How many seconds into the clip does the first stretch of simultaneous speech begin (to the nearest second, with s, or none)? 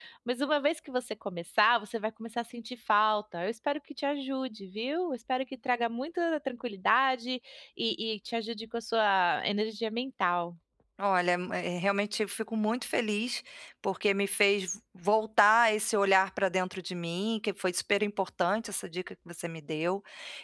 none